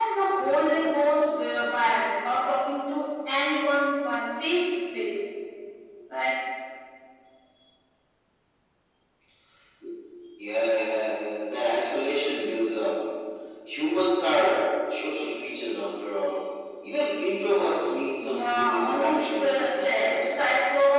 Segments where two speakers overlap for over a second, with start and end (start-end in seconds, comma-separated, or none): 18.2-20.3